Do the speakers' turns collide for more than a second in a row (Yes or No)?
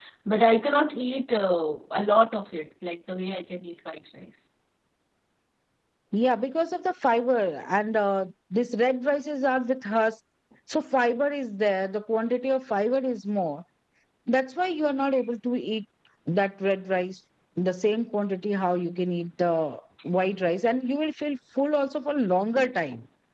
No